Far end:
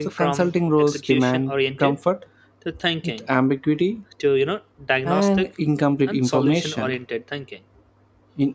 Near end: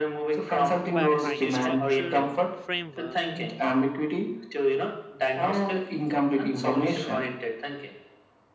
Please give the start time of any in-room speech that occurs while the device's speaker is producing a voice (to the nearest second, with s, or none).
1 s